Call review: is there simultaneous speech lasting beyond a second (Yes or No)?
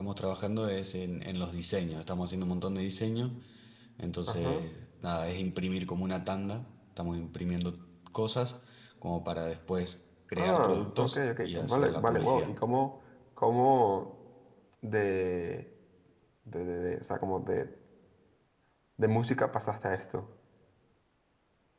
Yes